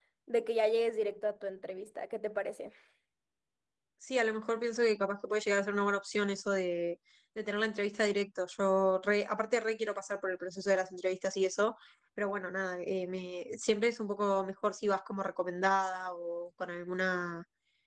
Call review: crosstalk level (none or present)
none